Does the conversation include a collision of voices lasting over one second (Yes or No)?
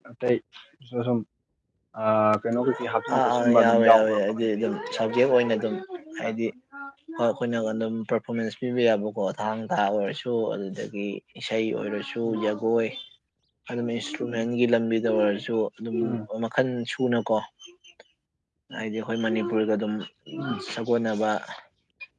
Yes